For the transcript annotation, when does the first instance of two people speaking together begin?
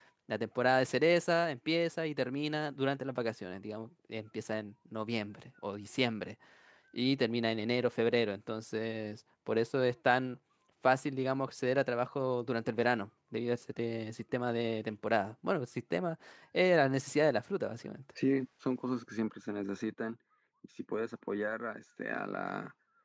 none

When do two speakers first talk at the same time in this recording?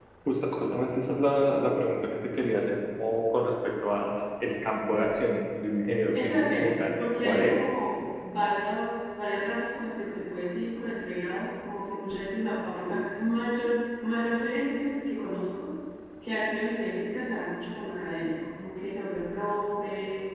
6.1 s

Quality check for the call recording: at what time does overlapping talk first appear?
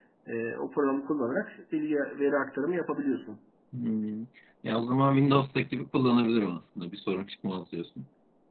none

